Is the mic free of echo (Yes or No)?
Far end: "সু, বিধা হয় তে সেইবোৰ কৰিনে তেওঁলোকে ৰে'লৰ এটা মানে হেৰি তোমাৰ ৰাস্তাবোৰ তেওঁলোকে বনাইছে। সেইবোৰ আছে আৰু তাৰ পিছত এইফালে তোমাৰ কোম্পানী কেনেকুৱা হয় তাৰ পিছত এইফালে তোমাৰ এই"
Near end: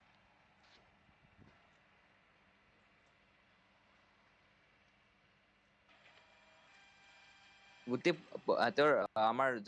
Yes